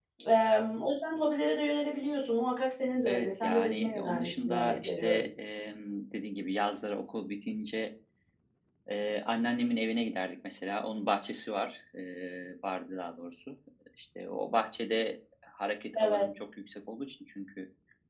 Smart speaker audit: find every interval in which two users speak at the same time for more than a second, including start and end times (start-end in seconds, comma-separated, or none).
3.1-5.3